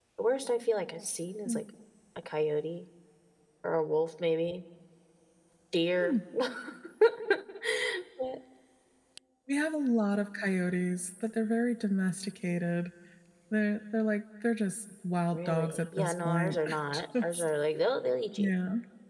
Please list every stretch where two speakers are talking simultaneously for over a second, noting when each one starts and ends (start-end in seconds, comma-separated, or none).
15.3-16.8